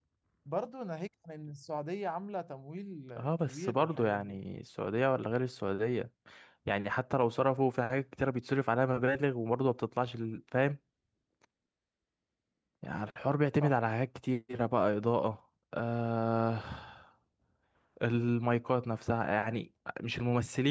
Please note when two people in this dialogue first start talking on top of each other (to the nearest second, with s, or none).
3 s